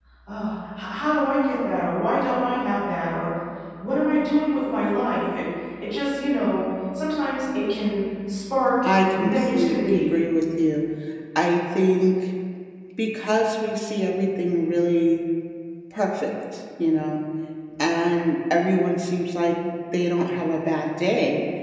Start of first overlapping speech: 8.8 s

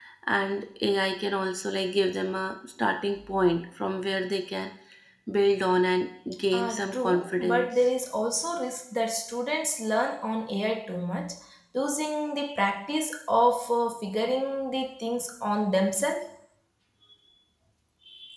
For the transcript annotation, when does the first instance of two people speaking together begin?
6.5 s

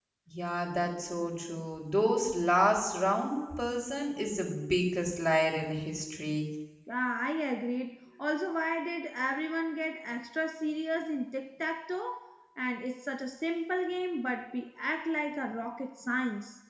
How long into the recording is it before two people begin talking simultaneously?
none

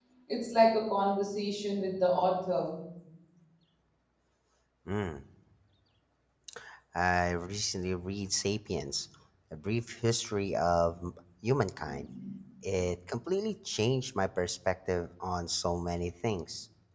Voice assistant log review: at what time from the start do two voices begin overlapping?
none

